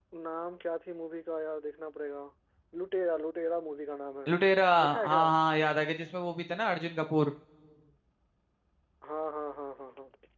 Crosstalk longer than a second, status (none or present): none